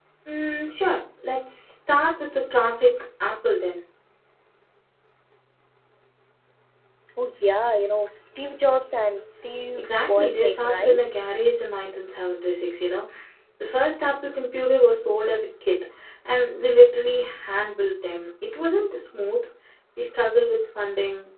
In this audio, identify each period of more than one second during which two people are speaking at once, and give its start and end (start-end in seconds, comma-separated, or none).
9.8-11.0